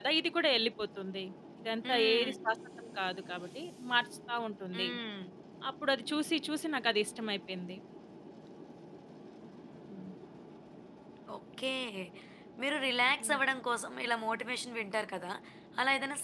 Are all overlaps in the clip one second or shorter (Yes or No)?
Yes